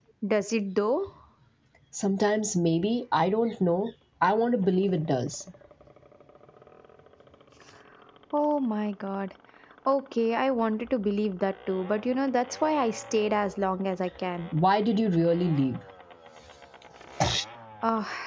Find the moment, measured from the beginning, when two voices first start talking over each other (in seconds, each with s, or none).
none